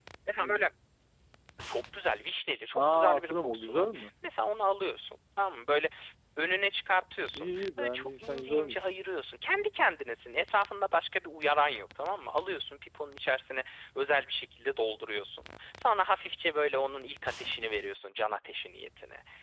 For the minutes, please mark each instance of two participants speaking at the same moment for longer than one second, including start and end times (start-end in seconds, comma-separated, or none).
2.7-4.1, 7.3-8.8